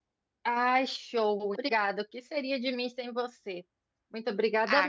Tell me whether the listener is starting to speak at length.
Yes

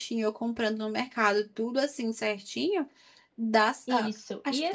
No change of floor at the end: No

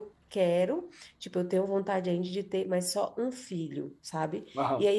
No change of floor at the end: Yes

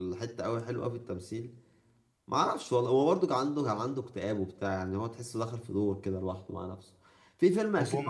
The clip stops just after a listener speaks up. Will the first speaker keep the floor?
Yes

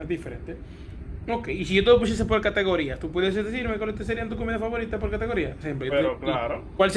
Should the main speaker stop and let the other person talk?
No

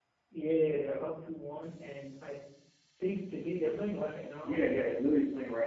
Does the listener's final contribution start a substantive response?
Yes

